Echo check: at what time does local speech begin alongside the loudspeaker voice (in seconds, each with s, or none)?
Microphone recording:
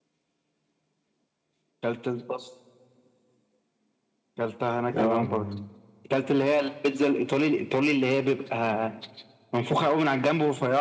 5.0 s